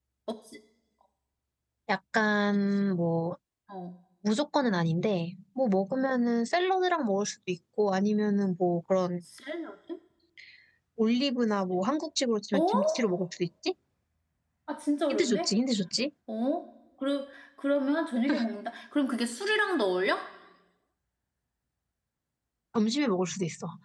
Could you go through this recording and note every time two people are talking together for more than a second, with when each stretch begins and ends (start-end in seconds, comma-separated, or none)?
none